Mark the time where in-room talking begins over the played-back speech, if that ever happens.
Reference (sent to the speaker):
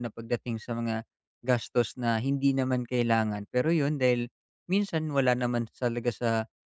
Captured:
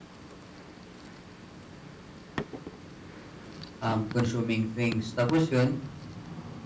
4 s

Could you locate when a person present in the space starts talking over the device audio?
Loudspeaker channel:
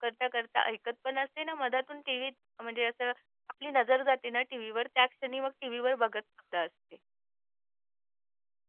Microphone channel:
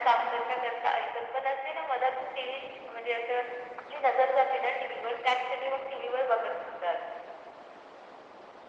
none

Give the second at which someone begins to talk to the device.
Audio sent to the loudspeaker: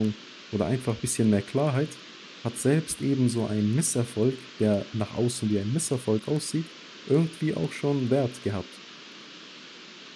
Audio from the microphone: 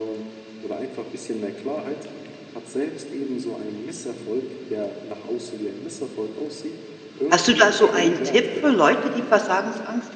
7 s

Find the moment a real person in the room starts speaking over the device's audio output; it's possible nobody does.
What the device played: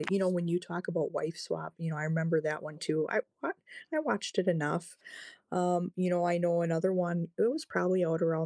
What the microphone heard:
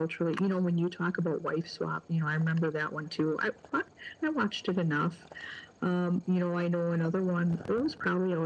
none

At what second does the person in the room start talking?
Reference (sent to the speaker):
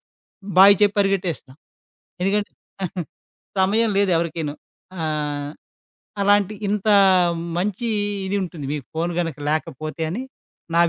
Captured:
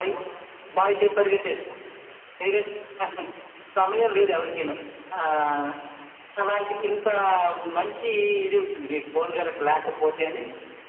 none

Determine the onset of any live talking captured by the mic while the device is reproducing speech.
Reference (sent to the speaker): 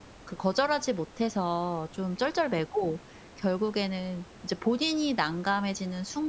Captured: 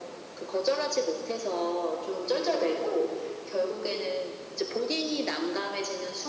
none

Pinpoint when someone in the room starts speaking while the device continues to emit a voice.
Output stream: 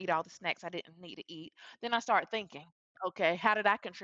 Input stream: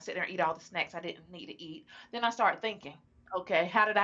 none

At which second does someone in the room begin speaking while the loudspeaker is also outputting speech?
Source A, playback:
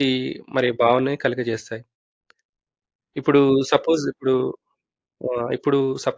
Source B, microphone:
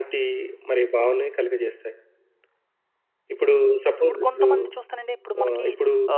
4 s

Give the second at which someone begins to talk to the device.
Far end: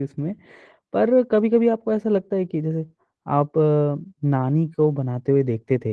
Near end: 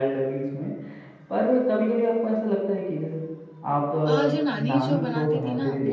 4 s

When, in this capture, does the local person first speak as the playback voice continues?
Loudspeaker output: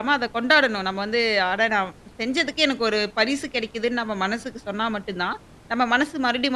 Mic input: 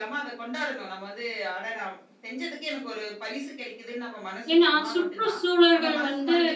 5 s

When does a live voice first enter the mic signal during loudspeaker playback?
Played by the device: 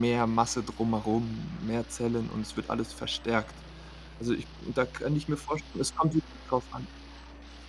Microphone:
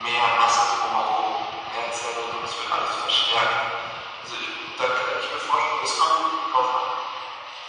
none

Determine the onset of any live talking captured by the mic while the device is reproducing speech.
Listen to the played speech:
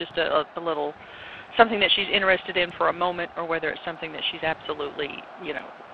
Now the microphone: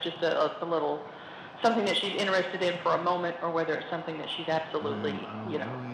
5 s

